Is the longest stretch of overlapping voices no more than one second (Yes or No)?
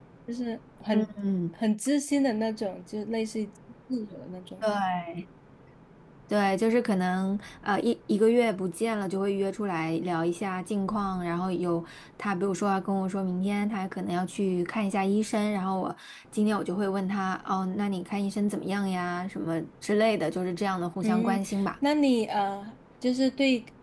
Yes